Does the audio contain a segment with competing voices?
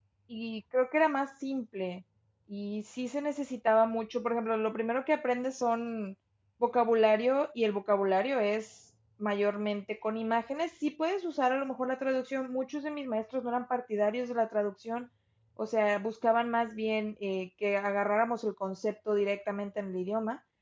No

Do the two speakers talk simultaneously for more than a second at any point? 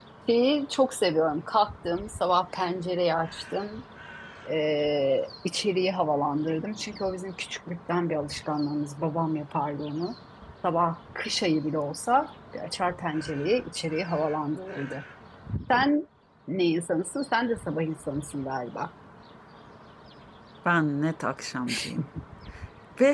No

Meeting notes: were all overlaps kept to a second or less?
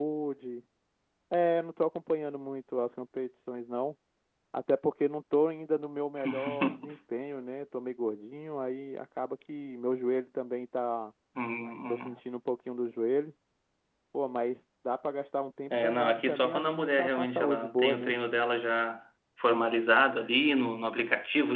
No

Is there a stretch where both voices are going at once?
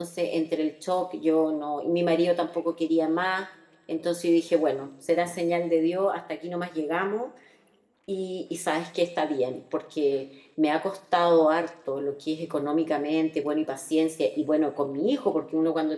No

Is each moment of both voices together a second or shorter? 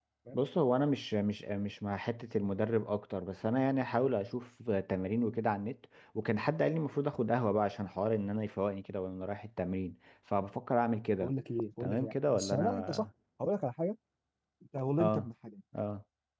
No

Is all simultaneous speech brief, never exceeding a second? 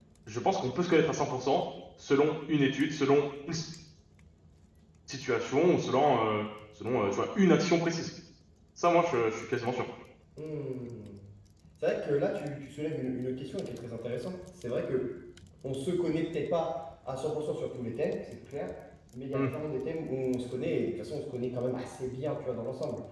Yes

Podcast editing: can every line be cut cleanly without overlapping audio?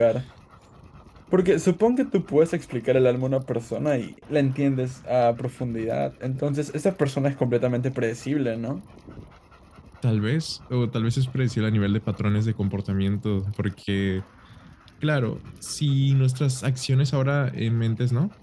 Yes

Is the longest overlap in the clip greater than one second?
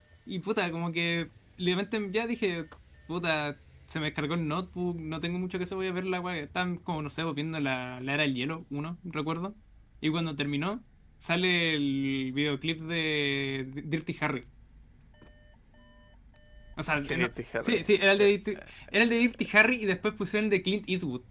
Yes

